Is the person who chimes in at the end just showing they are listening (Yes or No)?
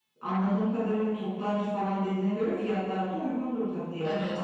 No